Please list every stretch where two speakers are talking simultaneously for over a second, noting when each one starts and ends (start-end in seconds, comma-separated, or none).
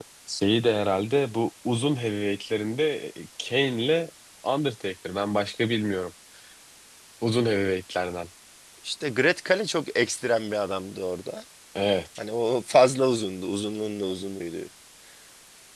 none